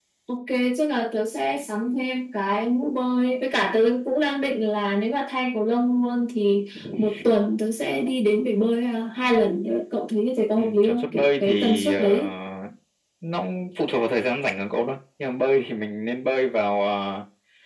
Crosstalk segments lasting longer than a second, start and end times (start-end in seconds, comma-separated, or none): 10.6-12.2